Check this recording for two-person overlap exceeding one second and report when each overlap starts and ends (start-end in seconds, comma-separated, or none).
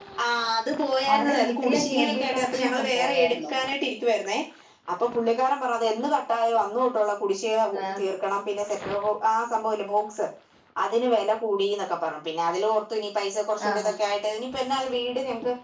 1.1-3.5